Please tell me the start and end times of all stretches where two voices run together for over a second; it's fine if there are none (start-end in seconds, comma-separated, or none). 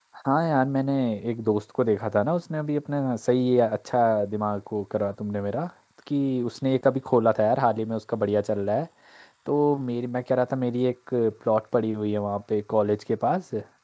none